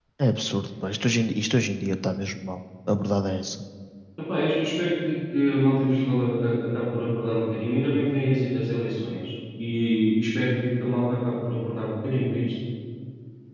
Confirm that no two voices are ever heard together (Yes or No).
Yes